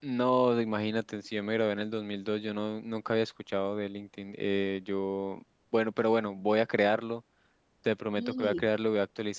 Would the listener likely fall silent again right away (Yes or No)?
Yes